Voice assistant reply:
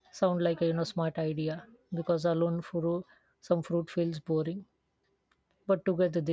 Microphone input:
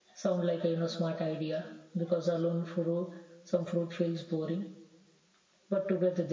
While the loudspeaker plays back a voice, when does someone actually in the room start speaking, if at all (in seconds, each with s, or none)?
none